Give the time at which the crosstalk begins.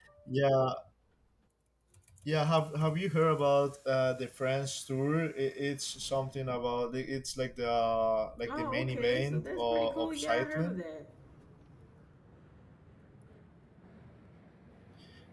8 s

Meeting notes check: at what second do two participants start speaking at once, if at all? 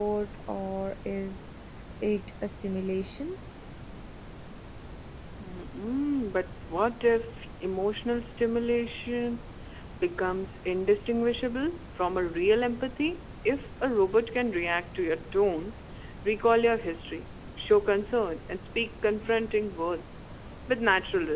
none

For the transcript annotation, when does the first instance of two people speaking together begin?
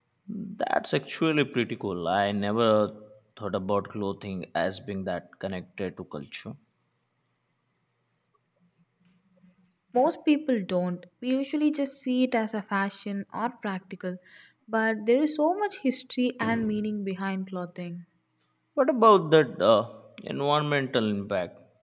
none

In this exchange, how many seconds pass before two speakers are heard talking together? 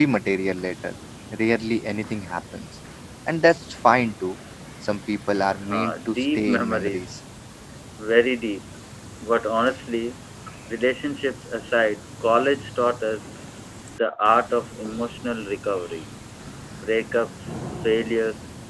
6 s

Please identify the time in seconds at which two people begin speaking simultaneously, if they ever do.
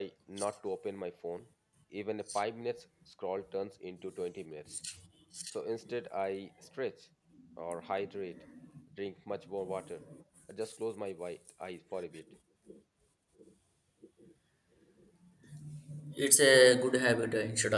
none

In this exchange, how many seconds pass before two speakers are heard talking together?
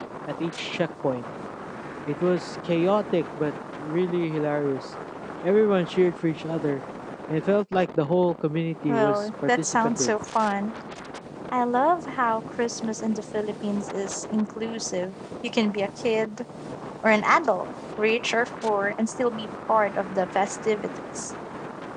9 s

